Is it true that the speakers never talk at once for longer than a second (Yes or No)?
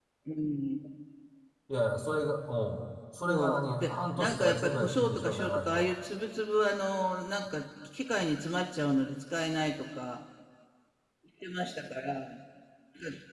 No